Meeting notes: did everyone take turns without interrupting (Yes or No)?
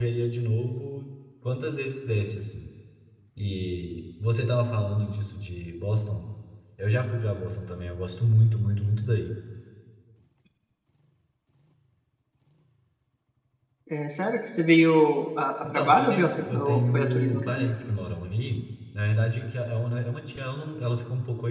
No